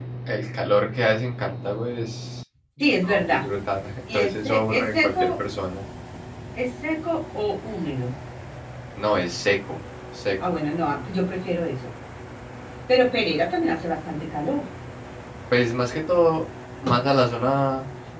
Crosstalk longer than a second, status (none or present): present